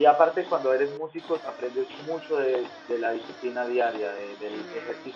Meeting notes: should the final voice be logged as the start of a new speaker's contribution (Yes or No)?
No